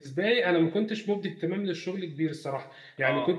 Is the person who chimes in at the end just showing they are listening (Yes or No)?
Yes